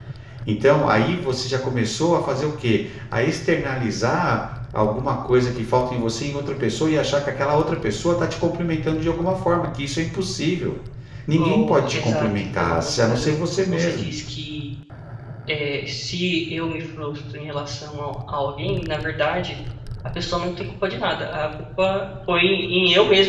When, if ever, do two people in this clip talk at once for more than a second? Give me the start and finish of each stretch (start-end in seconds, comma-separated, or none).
11.3-14.1